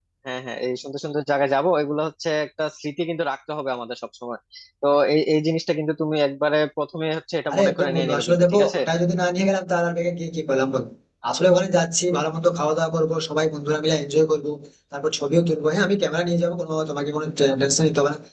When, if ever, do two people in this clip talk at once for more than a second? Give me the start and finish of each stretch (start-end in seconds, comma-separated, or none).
7.5-8.8